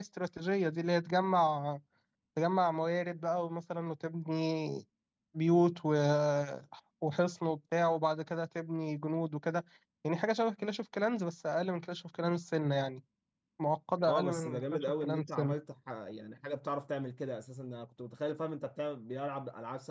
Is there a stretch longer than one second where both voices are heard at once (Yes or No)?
Yes